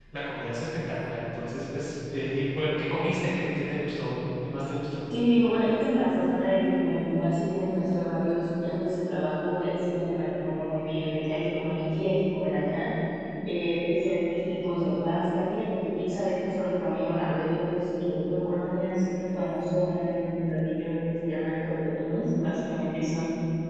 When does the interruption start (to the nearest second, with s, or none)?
none